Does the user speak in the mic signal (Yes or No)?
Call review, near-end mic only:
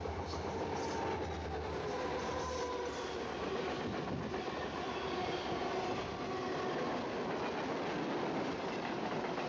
No